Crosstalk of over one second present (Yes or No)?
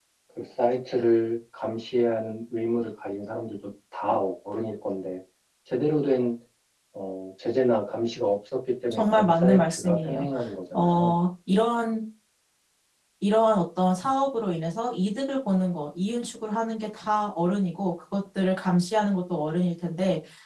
Yes